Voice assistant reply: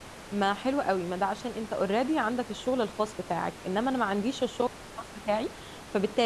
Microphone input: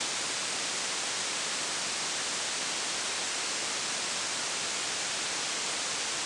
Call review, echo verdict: none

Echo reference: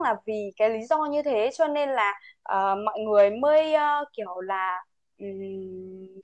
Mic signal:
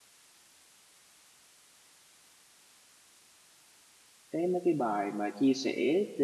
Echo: none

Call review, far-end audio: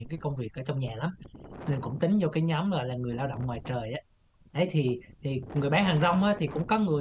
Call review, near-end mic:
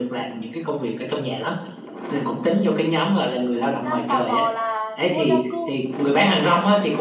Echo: present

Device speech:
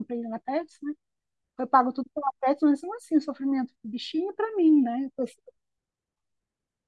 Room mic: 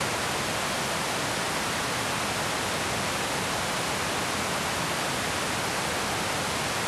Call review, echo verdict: none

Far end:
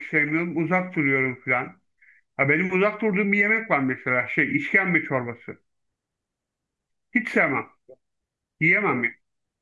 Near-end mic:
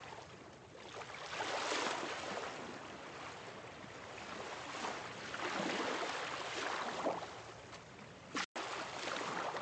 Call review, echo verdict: none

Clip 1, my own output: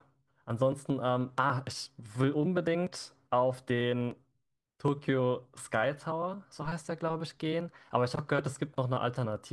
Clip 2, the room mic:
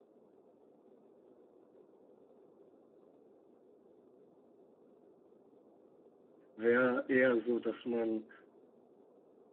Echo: none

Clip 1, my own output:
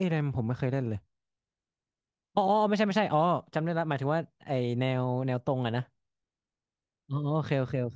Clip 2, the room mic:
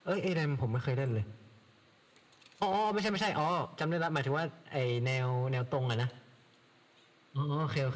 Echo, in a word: present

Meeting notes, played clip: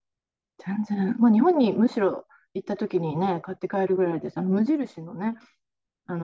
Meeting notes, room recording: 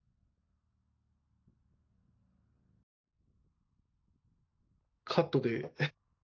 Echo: none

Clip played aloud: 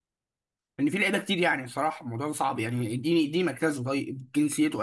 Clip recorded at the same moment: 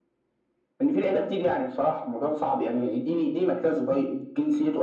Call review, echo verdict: present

